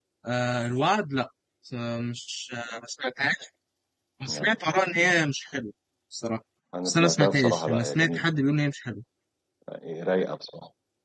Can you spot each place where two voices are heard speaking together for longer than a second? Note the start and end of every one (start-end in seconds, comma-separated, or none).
6.8-8.2